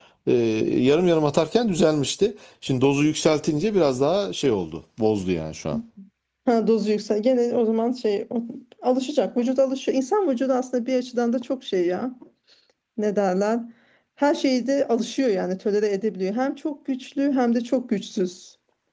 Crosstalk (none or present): none